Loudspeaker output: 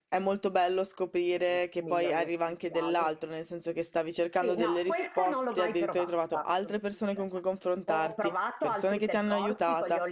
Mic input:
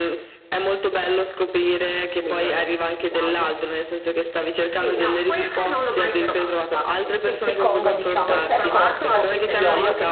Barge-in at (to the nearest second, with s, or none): 7 s